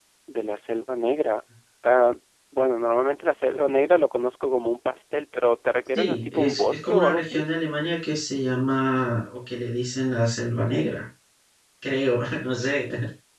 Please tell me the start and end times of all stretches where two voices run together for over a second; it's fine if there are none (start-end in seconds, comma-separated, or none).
6.0-7.4